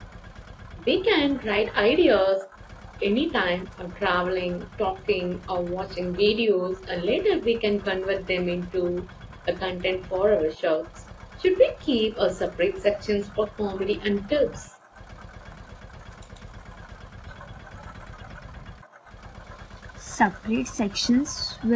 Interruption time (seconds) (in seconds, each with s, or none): none